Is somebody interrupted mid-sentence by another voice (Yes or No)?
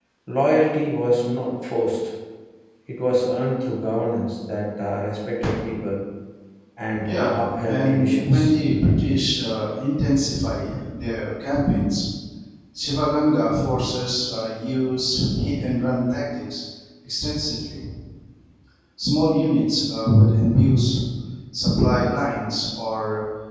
Yes